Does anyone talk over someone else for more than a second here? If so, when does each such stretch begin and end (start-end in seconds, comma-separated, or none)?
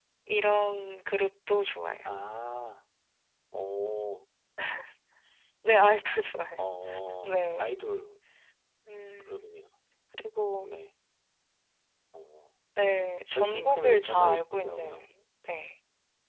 13.3-15.1